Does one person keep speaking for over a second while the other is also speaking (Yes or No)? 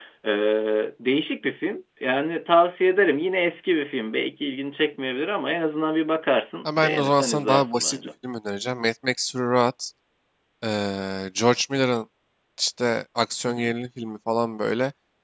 Yes